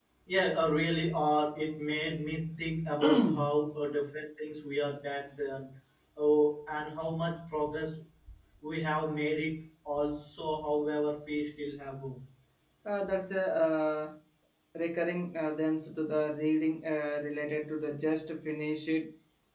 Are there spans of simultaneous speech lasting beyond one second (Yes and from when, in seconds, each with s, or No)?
No